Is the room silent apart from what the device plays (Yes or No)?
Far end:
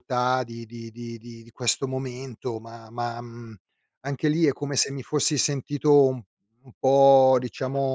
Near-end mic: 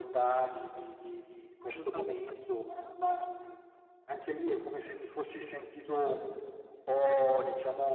No